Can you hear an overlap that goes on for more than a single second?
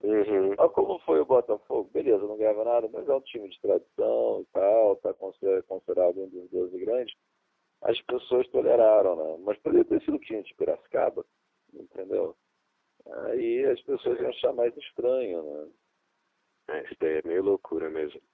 No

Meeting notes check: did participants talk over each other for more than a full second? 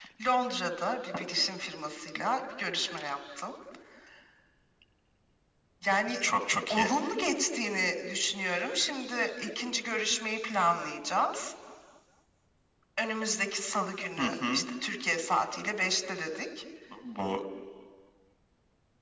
No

